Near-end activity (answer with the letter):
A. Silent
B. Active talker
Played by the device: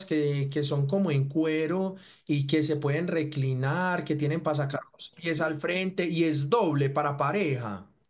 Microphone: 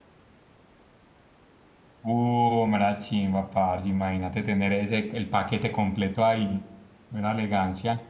B